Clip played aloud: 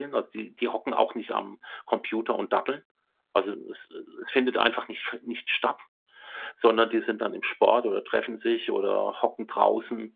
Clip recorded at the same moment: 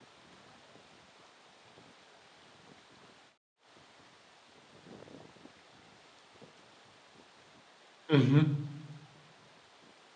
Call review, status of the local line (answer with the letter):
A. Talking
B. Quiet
A